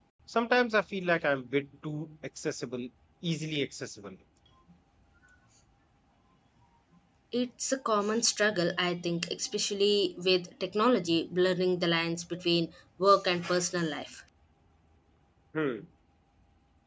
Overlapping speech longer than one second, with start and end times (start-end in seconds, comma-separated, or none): none